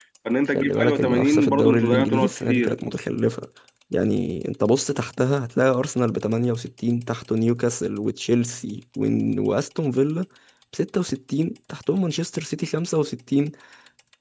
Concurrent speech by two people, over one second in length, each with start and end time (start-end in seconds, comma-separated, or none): 0.6-2.9